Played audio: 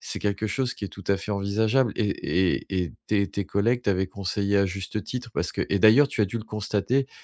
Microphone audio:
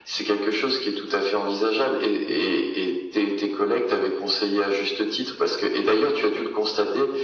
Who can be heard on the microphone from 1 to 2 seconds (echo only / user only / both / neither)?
echo only